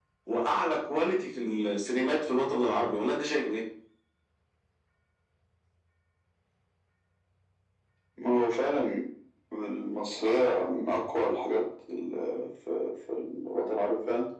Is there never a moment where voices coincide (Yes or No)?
Yes